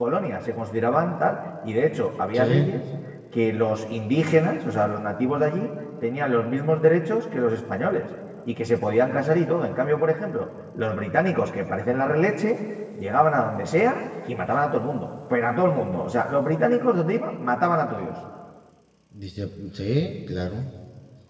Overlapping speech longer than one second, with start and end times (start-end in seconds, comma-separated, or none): none